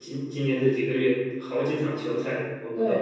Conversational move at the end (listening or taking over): taking over